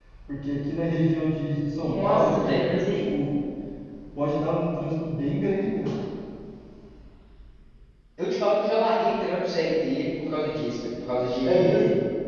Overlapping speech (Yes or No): Yes